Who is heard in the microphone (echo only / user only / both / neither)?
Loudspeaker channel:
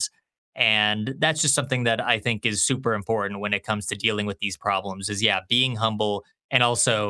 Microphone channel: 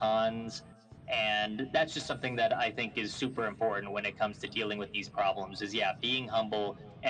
echo only